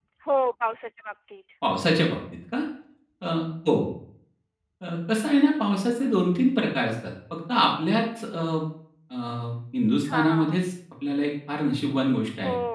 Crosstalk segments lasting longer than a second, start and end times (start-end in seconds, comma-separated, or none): none